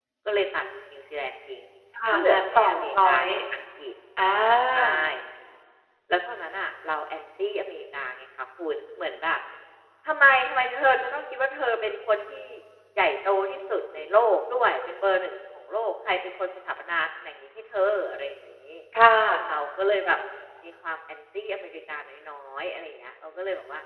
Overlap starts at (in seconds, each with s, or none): 2.1 s